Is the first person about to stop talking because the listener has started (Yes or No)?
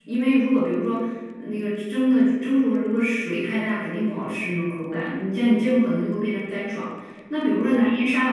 No